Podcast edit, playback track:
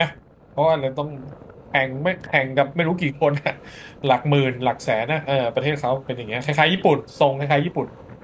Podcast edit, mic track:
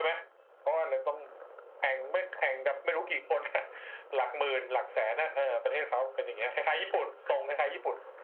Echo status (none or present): present